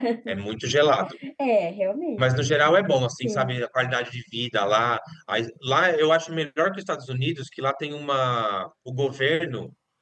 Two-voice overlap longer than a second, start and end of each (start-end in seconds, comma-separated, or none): none